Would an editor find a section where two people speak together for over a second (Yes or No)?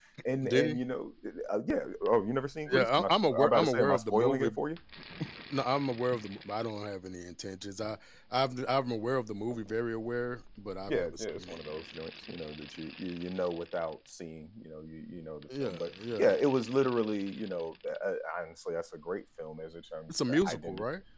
Yes